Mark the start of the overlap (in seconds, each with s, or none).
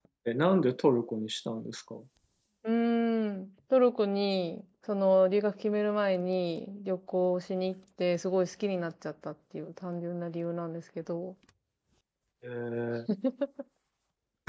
none